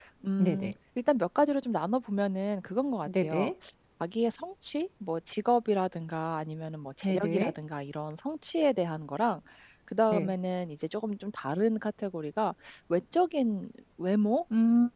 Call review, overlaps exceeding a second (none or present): none